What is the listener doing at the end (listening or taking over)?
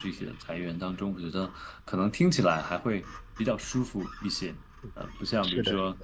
listening